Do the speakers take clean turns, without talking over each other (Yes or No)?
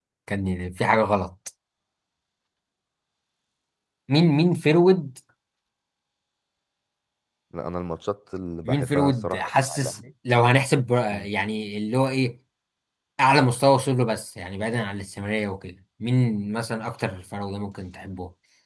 No